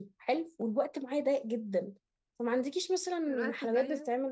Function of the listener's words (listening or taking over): listening